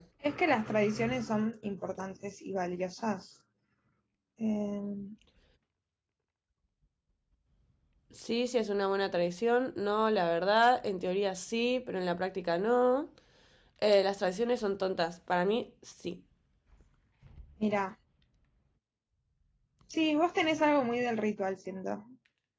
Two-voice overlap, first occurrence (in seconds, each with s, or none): none